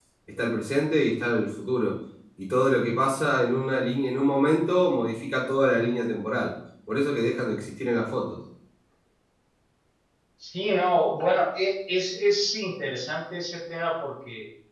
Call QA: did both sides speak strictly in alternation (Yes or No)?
Yes